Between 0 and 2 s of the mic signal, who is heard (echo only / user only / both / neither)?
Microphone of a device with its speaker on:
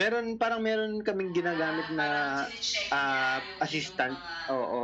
both